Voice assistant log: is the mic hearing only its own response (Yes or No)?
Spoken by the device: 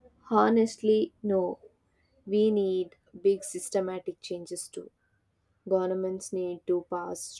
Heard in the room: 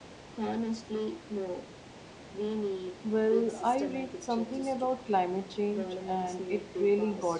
No